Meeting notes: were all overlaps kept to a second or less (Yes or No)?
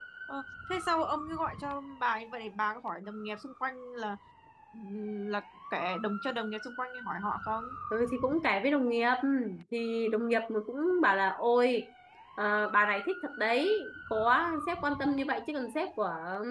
Yes